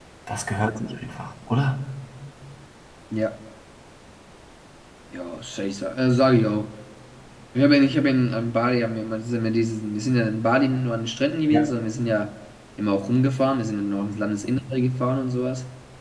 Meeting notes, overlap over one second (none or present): none